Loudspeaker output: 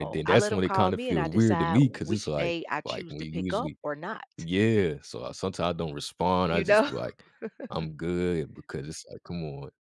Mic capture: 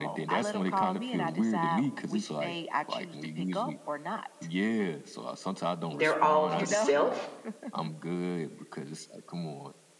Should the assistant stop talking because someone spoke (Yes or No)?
Yes